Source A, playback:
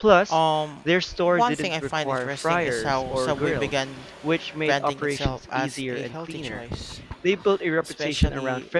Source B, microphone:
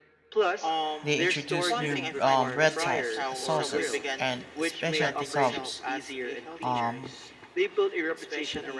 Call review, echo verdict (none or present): present